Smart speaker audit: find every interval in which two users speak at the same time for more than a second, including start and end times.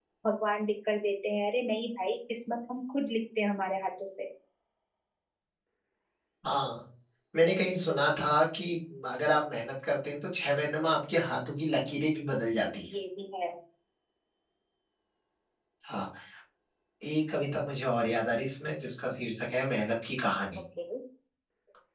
none

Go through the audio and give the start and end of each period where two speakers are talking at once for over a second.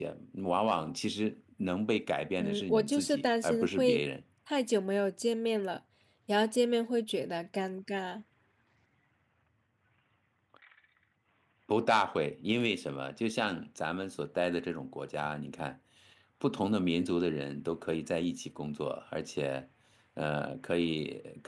2.4-4.0

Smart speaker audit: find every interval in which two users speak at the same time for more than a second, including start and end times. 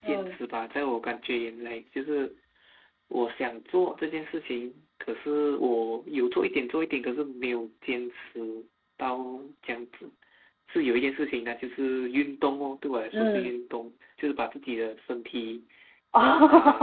none

